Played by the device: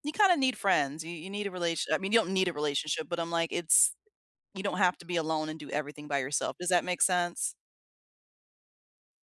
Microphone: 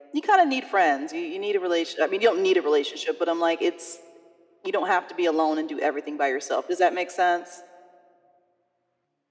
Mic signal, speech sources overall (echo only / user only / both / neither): echo only